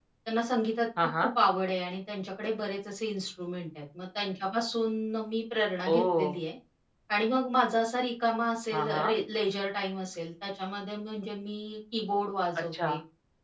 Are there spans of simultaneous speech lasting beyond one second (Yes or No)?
No